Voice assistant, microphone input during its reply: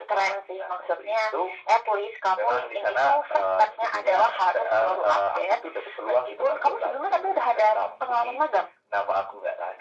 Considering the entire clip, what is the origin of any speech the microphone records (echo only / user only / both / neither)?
echo only